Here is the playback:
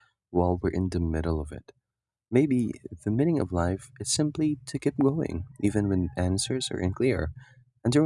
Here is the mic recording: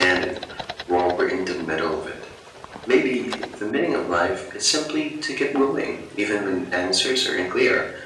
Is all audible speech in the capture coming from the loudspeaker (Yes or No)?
Yes